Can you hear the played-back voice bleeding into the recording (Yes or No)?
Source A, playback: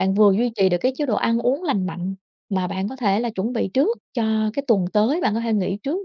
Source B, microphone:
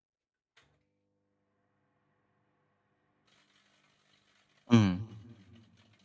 No